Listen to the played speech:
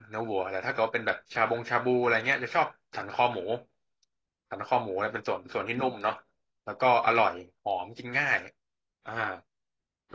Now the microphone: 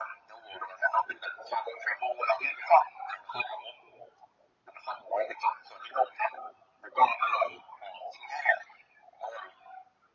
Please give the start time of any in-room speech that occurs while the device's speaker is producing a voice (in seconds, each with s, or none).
none